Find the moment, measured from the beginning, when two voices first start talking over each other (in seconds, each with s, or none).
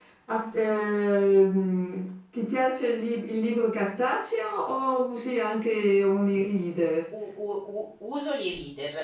none